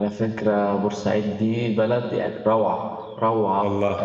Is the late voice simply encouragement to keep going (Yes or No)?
Yes